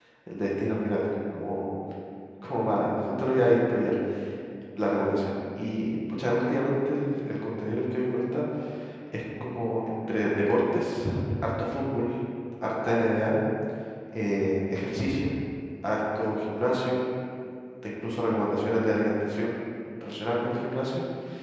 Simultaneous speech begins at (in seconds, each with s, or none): none